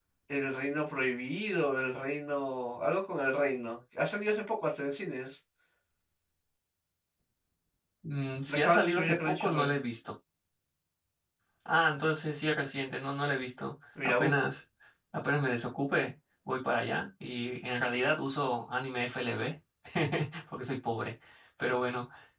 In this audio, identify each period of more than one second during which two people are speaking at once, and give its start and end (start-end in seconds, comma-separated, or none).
8.5-9.7